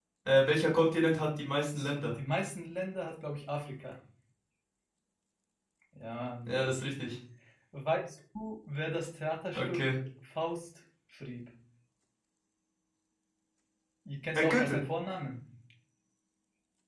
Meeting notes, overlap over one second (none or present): none